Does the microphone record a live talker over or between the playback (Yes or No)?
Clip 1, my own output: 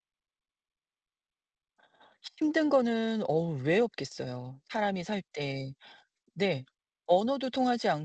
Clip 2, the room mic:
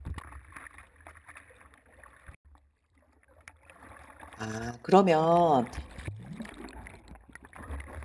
Yes